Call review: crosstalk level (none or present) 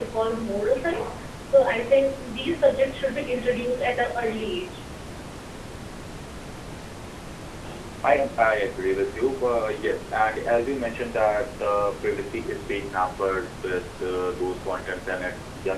none